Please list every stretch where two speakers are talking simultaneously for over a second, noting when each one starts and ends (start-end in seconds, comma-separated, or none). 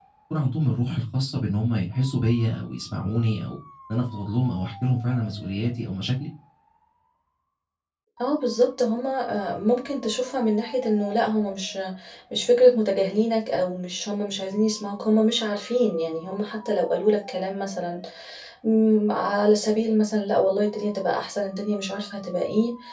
none